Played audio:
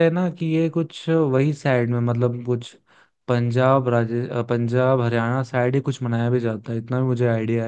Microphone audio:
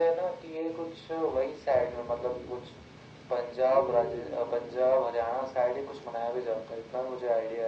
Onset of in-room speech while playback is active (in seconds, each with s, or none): none